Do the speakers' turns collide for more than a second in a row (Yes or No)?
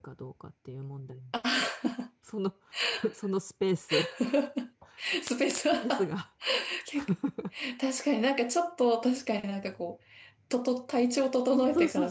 No